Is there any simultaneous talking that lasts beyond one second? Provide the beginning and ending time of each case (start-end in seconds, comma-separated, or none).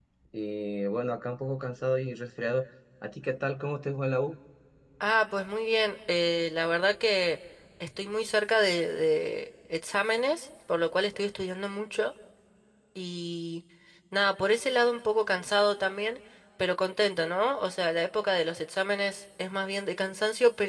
none